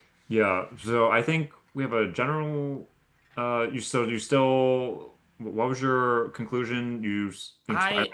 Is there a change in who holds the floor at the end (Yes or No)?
Yes